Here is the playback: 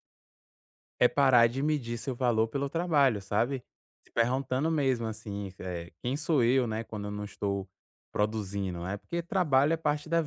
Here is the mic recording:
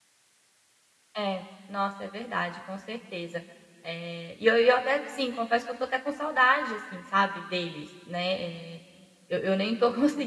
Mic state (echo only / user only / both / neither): user only